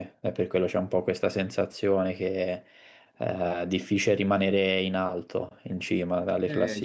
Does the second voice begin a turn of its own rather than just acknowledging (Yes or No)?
Yes